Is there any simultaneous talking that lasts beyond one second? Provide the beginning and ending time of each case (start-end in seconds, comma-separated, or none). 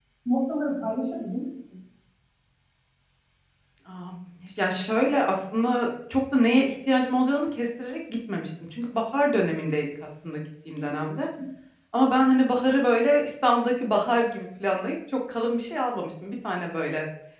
none